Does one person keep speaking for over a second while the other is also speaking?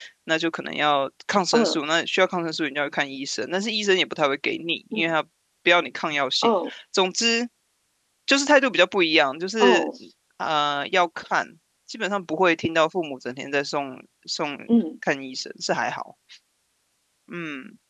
No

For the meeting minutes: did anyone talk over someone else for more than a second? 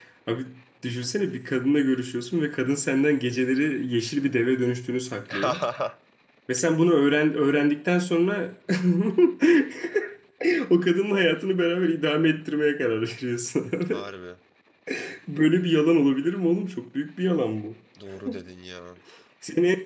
No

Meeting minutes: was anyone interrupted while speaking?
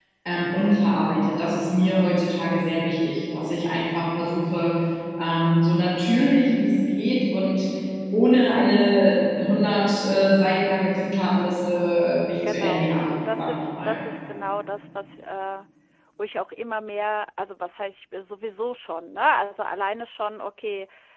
Yes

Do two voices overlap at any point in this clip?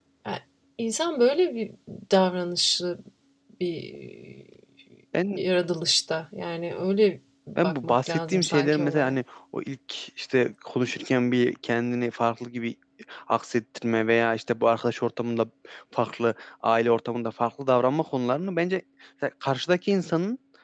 Yes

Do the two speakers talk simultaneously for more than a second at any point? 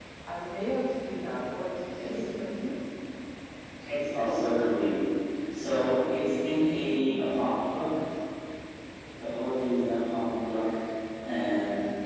No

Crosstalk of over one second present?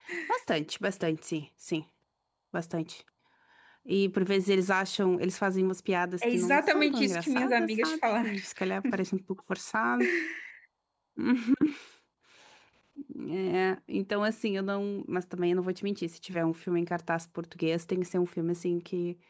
Yes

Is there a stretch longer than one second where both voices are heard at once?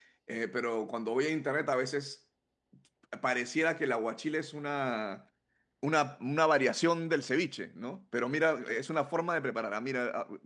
No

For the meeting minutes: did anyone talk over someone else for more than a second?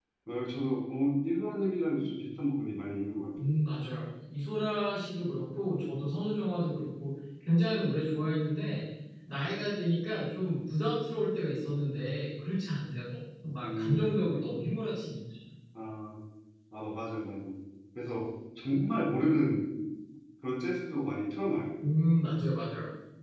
No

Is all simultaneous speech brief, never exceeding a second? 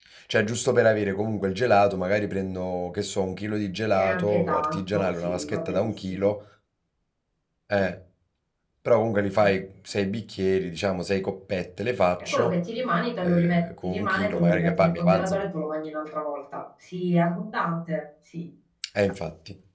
No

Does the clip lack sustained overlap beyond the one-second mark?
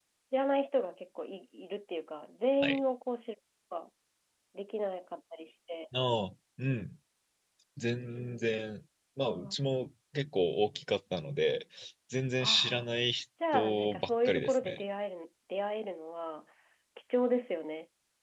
No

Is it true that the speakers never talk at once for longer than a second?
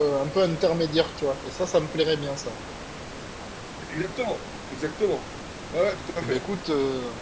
Yes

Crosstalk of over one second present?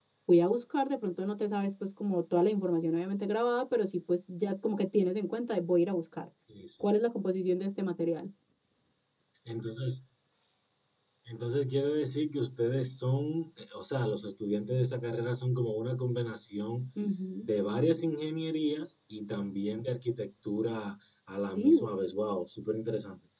No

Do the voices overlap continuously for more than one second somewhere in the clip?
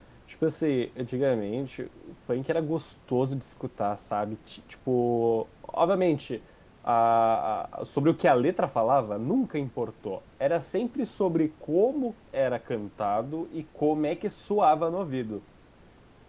No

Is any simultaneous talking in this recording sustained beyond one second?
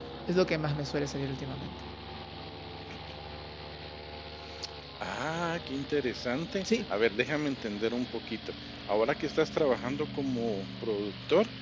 No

